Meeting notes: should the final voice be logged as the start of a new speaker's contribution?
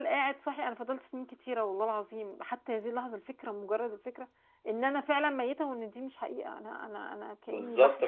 Yes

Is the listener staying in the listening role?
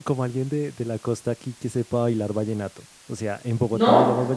Yes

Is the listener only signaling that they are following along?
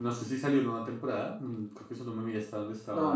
No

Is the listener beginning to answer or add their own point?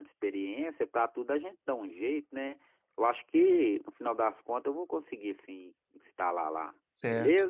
Yes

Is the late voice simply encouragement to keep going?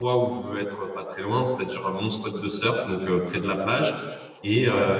Yes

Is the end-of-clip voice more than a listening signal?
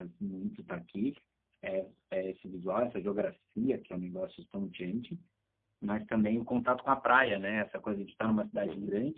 No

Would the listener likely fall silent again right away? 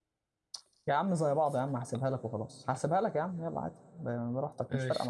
No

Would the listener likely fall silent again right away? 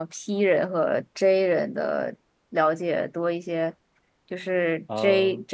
Yes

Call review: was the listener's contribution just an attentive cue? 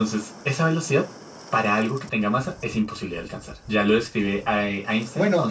No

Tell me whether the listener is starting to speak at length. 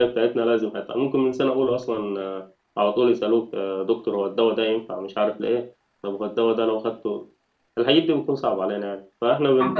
No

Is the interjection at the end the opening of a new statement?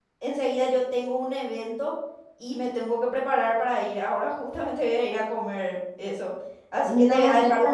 Yes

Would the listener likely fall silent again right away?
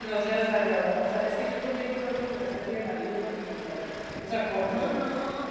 No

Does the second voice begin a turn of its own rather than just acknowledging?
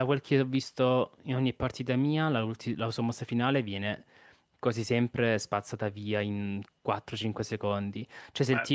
No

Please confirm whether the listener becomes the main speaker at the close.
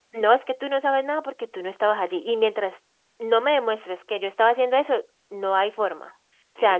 Yes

